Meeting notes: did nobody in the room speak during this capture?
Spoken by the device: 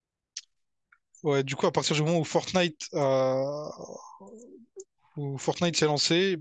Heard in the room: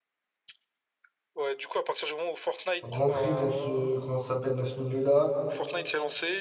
No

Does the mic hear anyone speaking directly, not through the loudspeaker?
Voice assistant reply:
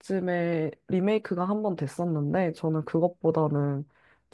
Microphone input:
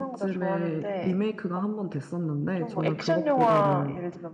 Yes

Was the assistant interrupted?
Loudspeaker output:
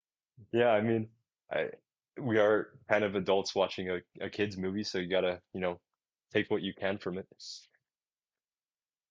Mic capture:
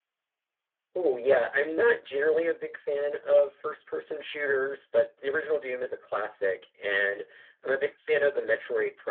Yes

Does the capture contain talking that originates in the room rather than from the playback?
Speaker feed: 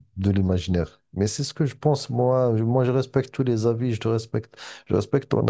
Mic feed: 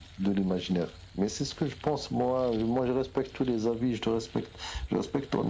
No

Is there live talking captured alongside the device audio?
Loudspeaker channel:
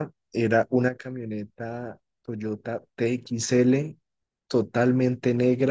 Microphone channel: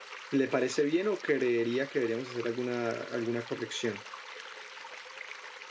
Yes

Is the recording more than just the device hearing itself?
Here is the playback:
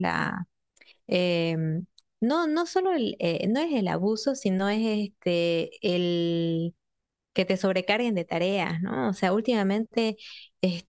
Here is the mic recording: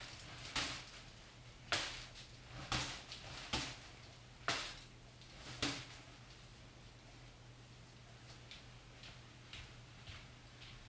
No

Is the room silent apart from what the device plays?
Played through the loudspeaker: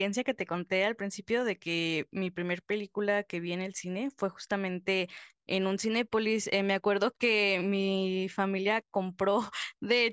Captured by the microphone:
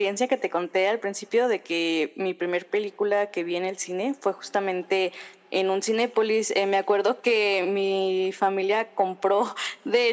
Yes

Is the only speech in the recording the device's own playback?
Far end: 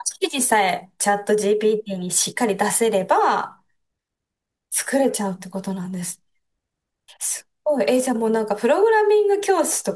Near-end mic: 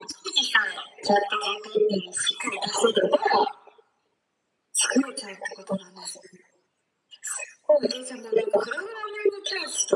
Yes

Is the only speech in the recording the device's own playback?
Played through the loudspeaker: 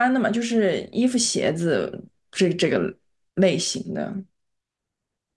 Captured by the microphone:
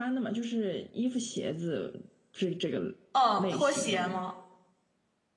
No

